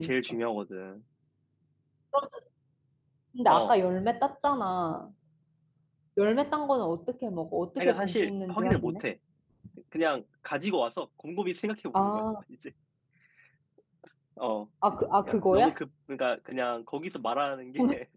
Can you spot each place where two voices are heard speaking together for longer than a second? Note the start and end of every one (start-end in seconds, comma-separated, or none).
7.8-9.0